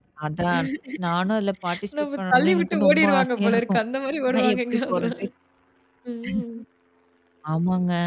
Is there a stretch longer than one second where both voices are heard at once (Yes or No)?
Yes